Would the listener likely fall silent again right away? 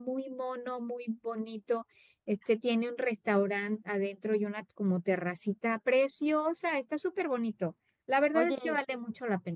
Yes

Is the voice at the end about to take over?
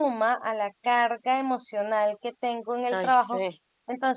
No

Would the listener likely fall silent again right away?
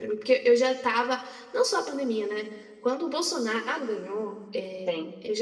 Yes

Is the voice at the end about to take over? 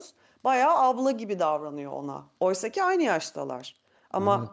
No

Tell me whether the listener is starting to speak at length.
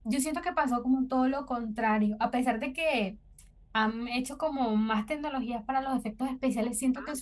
No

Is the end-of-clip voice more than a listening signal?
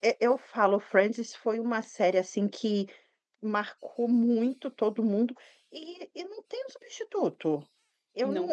No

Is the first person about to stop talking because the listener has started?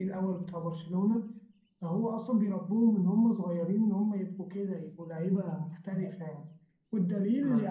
No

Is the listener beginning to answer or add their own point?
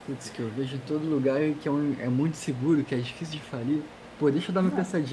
No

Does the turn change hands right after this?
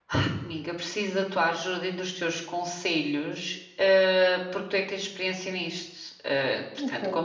No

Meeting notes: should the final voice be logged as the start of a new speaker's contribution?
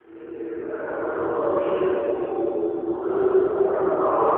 Yes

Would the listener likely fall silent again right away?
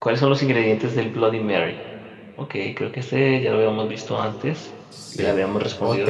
No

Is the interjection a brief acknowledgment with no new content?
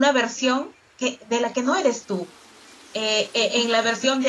Yes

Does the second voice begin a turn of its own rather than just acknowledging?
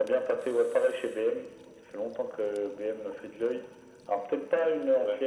No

